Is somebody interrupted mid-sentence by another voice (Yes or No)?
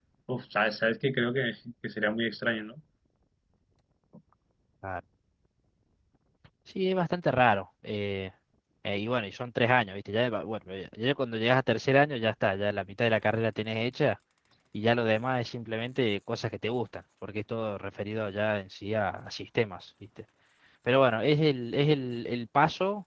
No